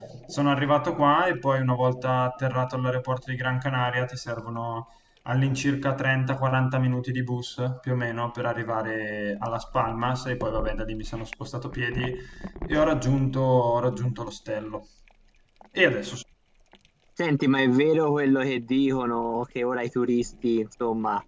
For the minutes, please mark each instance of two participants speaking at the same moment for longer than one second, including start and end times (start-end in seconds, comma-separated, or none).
none